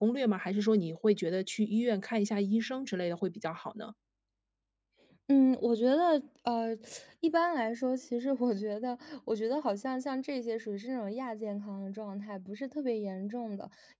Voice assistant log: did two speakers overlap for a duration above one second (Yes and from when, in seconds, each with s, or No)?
No